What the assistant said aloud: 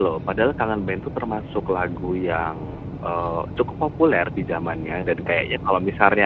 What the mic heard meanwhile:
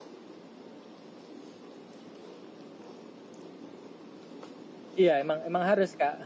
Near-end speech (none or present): present